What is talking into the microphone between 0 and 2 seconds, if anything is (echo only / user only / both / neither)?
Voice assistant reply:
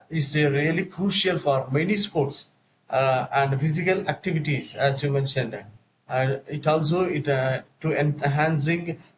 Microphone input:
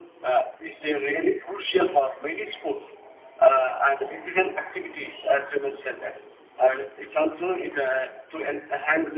echo only